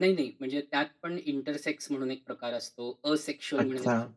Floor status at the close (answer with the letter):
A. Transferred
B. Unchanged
B